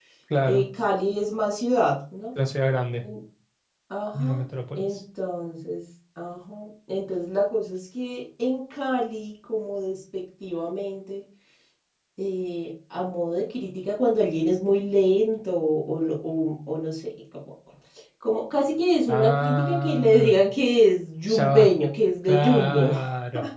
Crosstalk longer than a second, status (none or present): present